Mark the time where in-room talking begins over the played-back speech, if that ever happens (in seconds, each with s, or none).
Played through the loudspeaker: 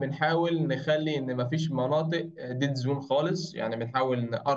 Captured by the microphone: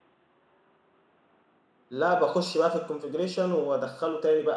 1.9 s